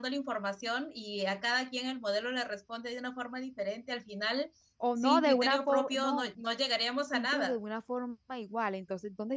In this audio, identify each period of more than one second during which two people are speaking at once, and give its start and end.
5.0-6.3

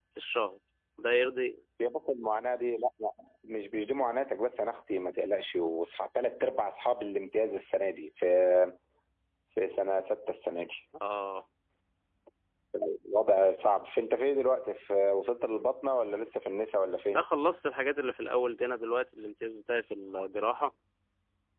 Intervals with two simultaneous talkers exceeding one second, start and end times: none

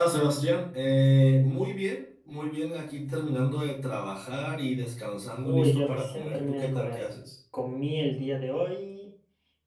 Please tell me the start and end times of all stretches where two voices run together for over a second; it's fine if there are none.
5.4-7.0

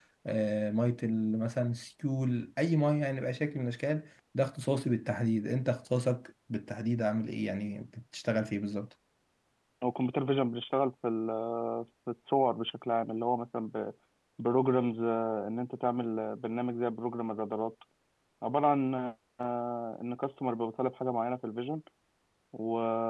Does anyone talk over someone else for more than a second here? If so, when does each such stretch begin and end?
none

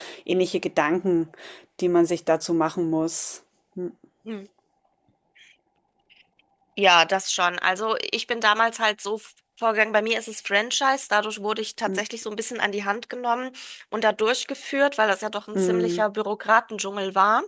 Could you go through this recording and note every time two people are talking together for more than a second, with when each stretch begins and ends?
none

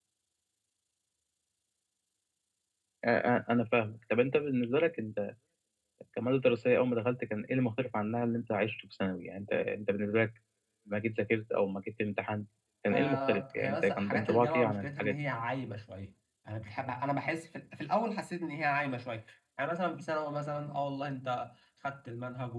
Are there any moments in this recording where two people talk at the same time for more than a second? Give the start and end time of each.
12.9-15.1

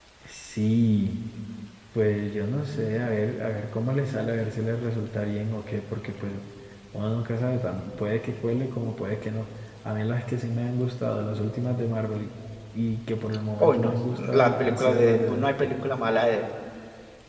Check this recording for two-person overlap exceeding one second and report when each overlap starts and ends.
13.6-15.8

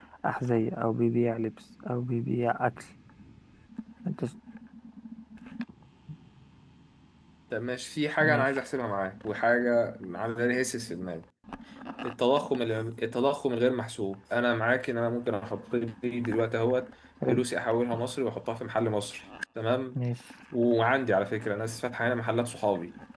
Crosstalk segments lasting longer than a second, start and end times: none

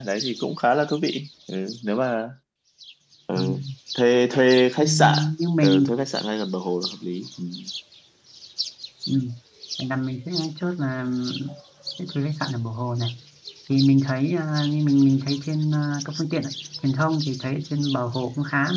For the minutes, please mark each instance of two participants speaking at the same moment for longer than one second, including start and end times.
none

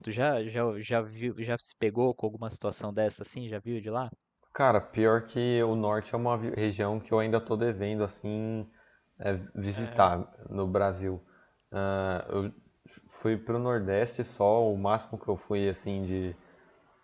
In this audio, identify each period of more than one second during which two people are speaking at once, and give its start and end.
none

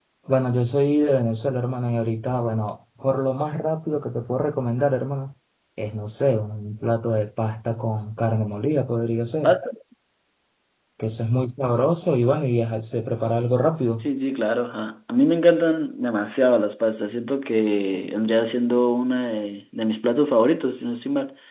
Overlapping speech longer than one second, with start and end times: none

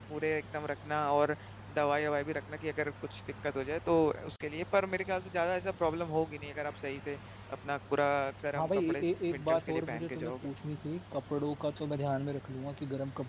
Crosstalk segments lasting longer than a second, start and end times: 8.6-10.5

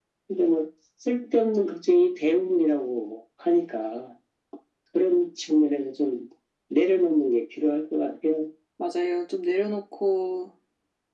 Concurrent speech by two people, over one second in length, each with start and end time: none

